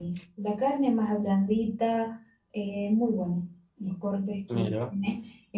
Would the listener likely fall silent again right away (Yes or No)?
Yes